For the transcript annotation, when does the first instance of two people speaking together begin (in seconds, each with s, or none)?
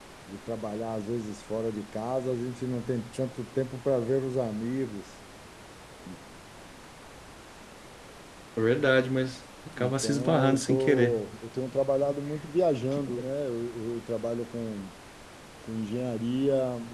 9.8 s